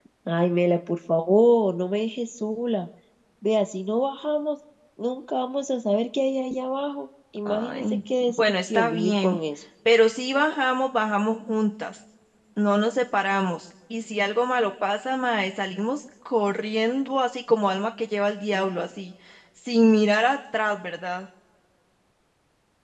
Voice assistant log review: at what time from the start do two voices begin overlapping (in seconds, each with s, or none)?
7.5 s